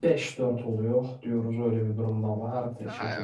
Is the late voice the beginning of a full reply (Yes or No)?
Yes